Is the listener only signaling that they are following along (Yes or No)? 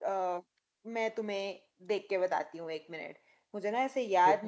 Yes